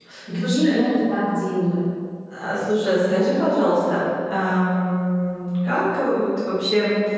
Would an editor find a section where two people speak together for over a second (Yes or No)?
No